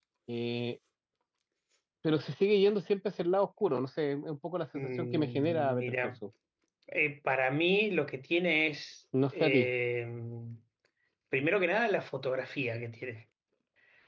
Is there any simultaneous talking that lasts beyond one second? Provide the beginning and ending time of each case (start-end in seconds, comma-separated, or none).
4.7-6.1